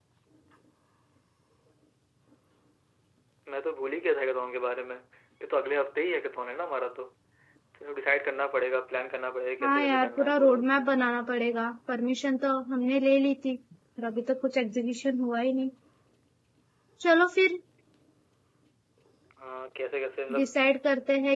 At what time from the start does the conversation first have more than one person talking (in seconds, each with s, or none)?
9.6 s